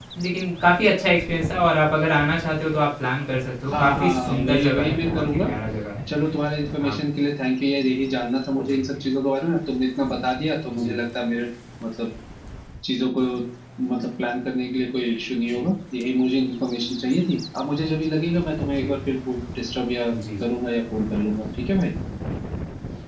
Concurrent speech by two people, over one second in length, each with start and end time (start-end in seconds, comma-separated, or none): 3.7-5.5